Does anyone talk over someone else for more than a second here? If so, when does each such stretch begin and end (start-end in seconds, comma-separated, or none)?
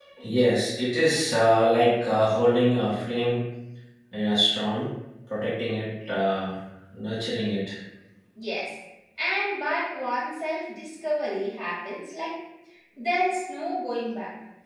none